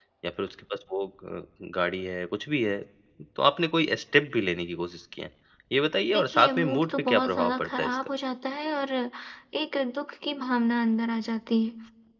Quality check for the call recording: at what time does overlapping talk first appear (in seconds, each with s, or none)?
6.1 s